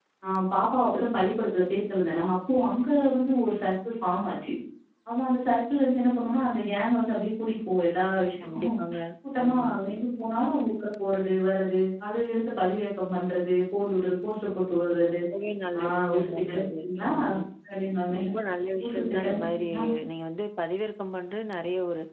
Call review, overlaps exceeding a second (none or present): present